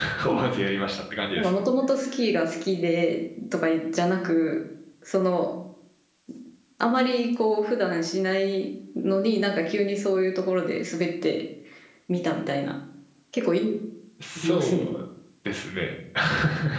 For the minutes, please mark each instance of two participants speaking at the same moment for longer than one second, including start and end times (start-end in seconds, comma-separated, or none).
none